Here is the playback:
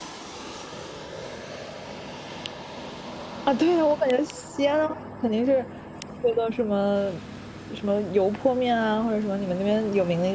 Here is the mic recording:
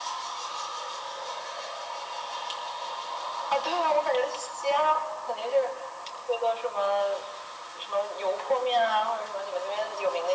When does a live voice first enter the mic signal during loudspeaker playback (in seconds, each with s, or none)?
none